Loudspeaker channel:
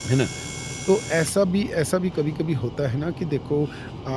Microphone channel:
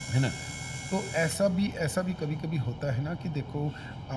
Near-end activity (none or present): none